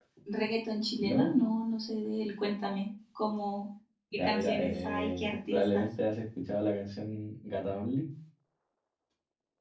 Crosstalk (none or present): present